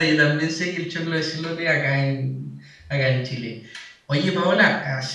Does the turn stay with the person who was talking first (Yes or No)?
Yes